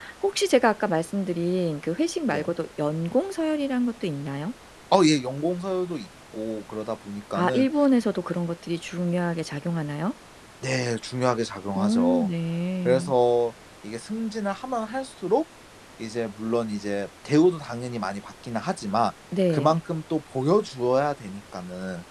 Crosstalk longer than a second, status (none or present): none